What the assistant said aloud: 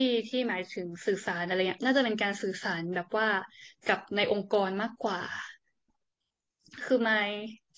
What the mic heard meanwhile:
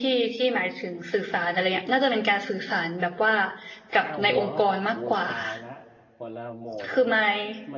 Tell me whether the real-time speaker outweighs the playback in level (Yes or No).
No